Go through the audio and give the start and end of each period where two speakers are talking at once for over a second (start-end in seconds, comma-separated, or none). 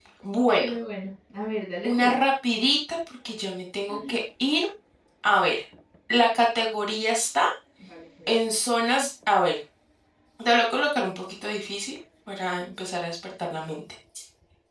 none